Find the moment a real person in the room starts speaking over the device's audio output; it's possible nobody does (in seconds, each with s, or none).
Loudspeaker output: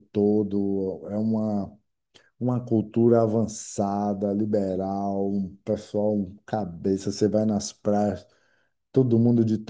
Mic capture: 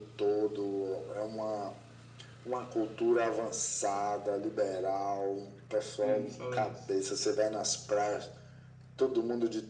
6.0 s